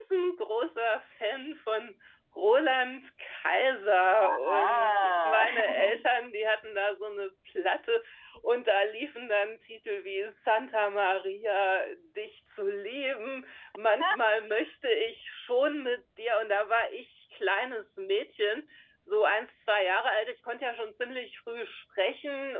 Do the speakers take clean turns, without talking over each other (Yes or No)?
No